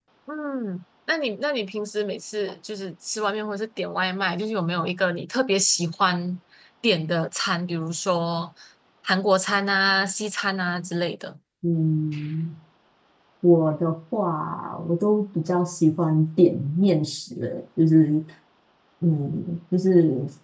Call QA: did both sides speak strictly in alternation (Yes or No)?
Yes